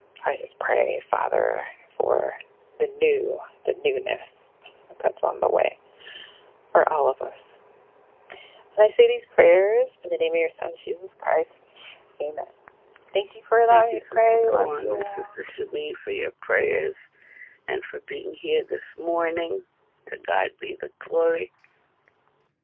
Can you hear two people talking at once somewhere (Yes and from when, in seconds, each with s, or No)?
Yes, from 13.7 s